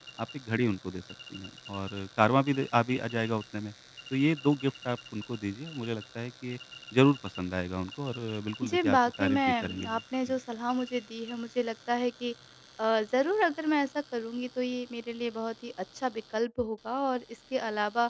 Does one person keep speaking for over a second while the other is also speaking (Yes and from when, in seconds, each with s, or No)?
Yes, from 8.6 s